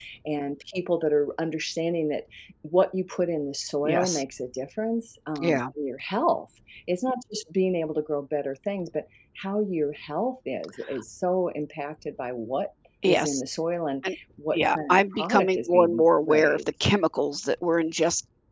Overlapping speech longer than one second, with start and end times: 14.5-16.6

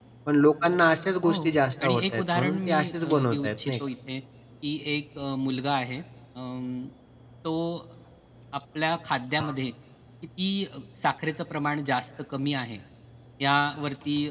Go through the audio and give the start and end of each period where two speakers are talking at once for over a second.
1.8-3.8

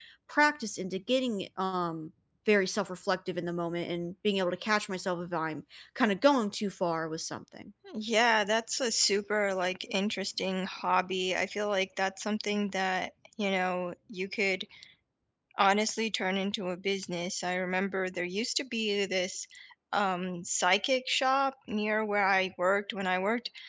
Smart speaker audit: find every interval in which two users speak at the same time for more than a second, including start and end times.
none

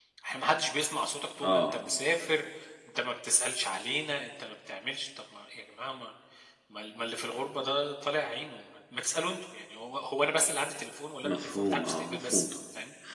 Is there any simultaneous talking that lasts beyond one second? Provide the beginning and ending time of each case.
11.2-12.4

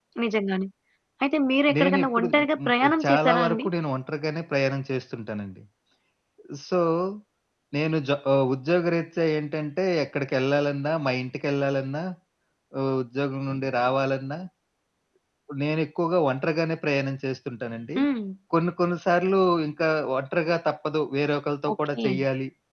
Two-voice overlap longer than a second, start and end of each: 1.8-3.7

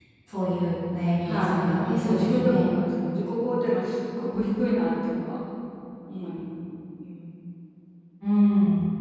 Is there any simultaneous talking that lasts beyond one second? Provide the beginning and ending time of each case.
1.2-2.7

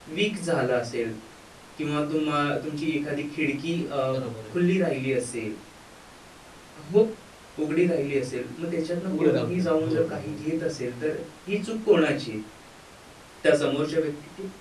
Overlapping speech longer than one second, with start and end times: 9.2-10.4

